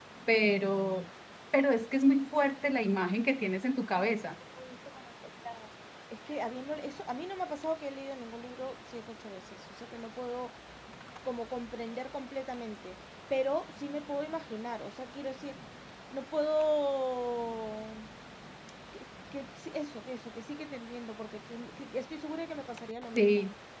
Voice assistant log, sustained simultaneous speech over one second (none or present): none